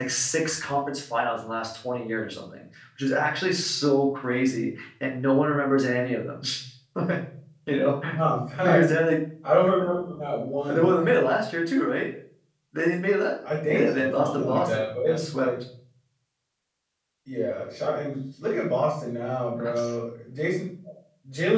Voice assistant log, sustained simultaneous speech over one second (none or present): present